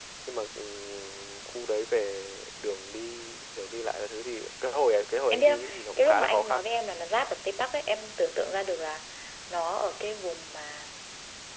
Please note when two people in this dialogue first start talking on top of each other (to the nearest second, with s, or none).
5 s